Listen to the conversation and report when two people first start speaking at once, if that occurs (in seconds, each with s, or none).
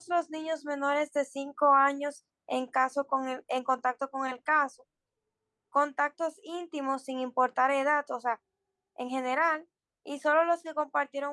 none